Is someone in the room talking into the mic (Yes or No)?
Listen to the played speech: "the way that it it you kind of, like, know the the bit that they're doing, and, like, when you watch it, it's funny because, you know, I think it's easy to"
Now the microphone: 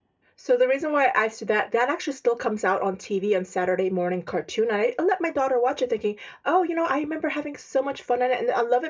Yes